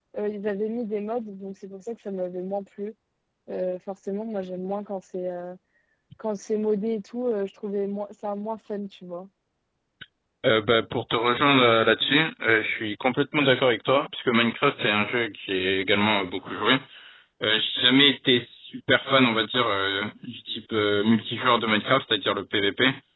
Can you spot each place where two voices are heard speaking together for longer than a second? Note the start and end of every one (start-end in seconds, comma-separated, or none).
none